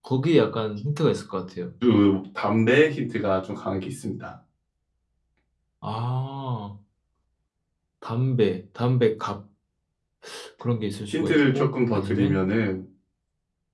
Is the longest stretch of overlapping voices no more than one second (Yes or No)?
No